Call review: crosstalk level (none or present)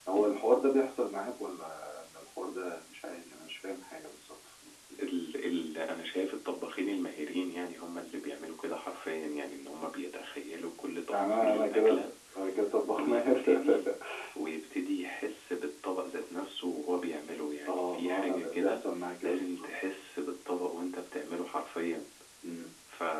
present